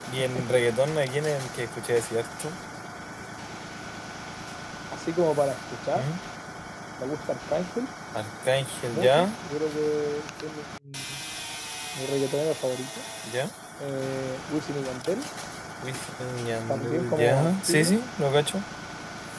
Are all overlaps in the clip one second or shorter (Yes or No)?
No